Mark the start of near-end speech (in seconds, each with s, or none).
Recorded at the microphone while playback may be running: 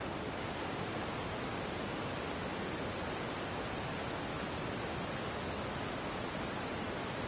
none